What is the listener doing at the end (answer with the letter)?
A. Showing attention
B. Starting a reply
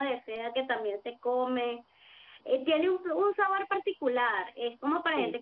A